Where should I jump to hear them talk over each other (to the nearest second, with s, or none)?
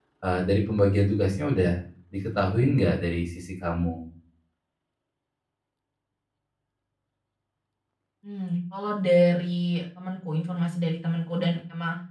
none